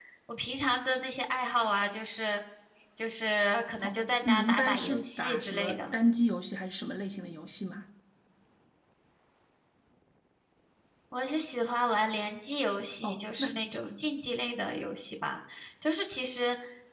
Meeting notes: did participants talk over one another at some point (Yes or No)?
Yes